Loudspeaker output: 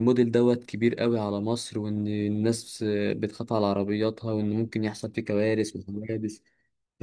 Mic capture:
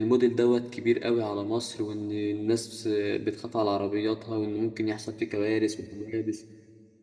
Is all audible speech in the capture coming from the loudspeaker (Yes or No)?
Yes